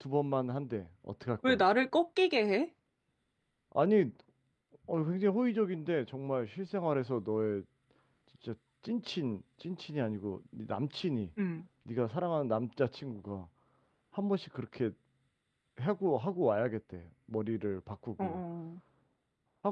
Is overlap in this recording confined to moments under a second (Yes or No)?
Yes